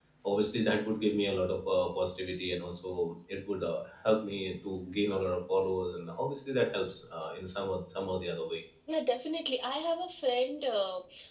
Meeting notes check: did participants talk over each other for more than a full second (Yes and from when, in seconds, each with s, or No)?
No